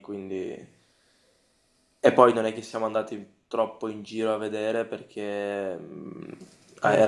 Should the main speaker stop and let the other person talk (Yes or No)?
No